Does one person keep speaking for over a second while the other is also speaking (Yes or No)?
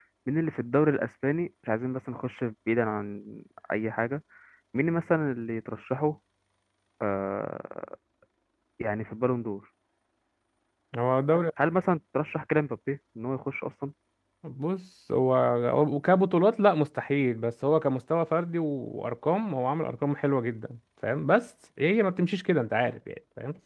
No